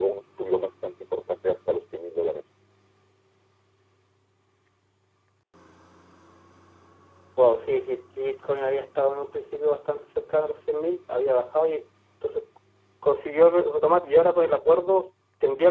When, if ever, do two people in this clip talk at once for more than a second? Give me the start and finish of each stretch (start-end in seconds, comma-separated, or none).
none